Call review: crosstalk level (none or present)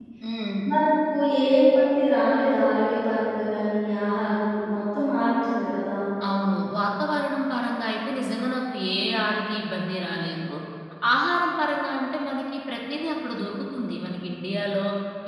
none